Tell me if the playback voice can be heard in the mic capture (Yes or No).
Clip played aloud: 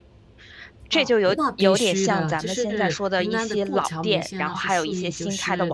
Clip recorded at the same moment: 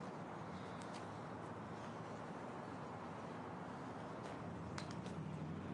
No